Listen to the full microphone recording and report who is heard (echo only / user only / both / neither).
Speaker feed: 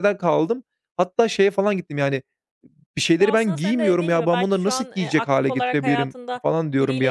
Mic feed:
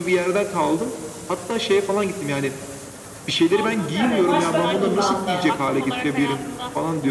both